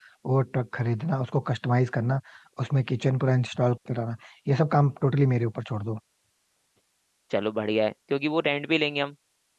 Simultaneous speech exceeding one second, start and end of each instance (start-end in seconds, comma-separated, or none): none